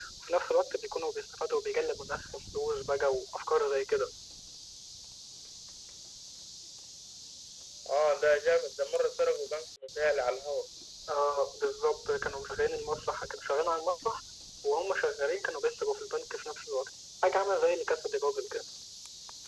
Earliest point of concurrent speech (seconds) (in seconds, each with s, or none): none